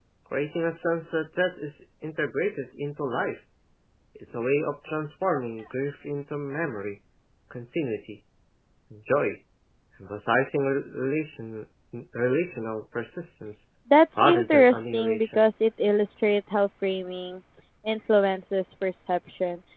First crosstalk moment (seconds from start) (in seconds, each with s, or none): 14.2 s